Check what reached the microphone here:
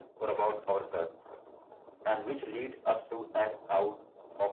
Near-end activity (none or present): none